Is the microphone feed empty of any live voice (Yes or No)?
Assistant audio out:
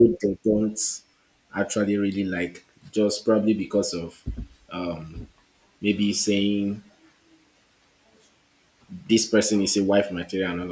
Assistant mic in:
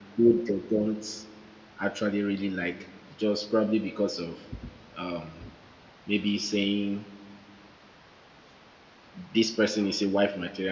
Yes